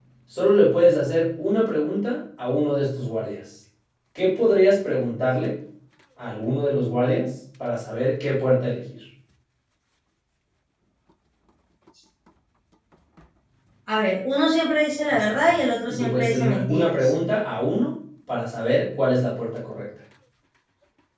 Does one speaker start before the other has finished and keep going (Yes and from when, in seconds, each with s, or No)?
Yes, from 15.1 s